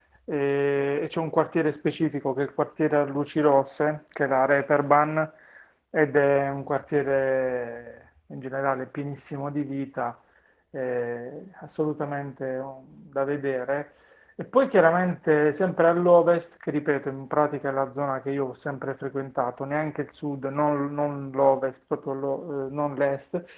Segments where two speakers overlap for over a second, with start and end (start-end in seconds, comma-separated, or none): none